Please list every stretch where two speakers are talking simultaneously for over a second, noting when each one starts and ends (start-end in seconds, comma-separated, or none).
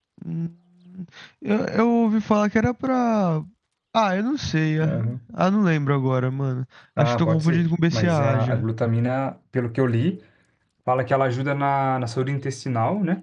7.0-8.7